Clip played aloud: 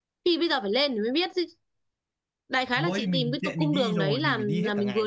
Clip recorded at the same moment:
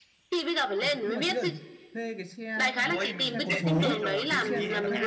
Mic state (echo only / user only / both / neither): both